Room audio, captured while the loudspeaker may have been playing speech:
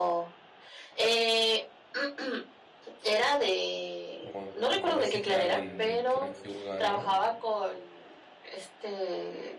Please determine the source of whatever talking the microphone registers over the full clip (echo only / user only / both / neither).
both